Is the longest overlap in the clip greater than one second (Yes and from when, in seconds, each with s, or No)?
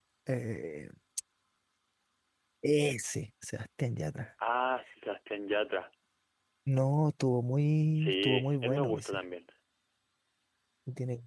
Yes, from 8.0 s